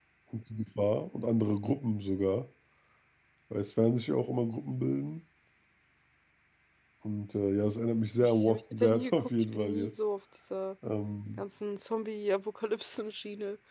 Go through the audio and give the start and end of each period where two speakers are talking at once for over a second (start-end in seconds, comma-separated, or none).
8.2-9.9